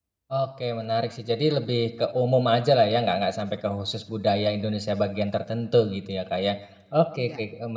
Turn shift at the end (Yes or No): No